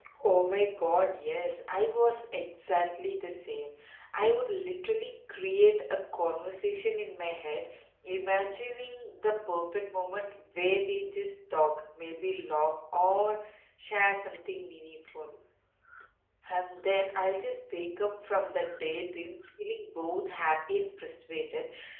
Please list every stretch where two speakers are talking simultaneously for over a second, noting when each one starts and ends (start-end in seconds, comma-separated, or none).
none